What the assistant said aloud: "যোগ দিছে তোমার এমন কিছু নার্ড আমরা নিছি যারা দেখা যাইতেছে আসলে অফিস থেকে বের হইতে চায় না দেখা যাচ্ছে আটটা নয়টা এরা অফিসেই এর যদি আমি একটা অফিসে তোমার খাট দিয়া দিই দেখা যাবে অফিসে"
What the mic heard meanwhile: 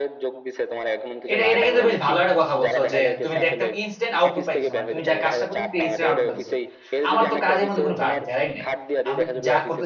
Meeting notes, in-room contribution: present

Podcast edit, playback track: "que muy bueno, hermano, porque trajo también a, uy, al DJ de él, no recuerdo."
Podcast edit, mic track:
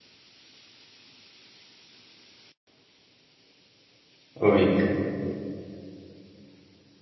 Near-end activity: present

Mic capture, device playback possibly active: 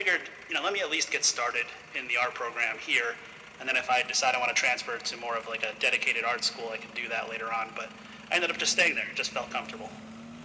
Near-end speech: none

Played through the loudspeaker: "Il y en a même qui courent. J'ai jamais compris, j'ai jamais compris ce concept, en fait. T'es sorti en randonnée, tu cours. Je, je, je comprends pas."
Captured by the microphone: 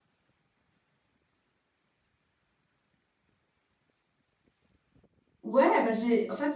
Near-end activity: present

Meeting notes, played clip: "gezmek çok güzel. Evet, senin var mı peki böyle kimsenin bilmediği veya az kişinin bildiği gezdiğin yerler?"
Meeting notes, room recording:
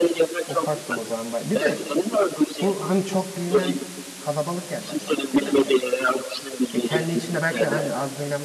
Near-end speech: present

